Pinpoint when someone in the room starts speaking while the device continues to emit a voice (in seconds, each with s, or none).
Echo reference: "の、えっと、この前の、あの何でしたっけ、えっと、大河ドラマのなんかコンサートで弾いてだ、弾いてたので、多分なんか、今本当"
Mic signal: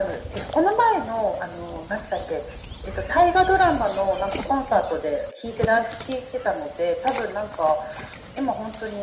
none